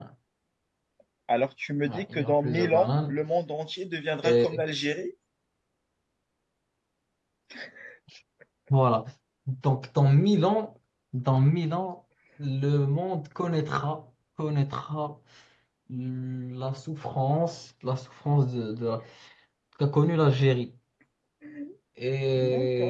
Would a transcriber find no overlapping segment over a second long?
No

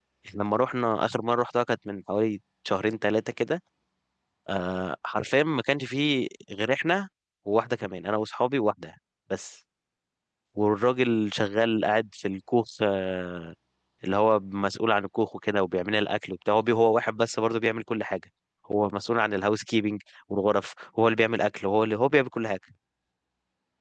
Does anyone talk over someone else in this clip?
No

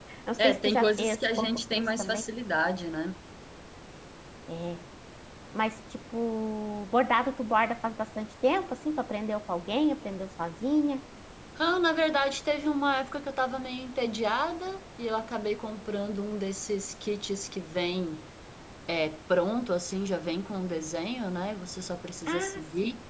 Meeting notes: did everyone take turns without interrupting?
No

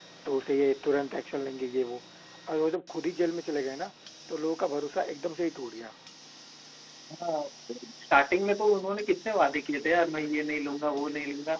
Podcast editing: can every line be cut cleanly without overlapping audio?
Yes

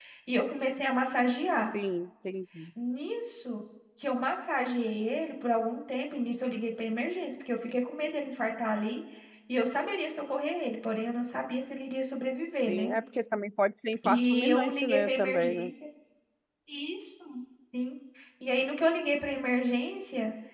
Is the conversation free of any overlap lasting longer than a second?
No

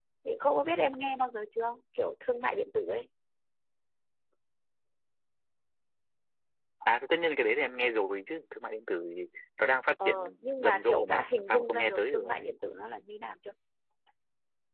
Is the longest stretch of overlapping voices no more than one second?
No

